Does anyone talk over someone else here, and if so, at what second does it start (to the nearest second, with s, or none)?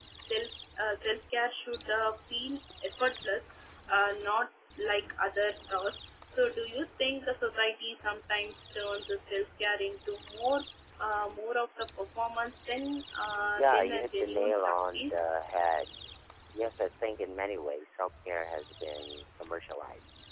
14 s